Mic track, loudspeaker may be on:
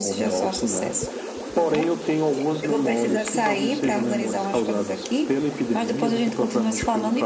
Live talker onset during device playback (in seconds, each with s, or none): none